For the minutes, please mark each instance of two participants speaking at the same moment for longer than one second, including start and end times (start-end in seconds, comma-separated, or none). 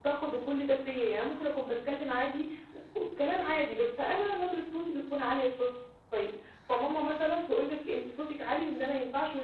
none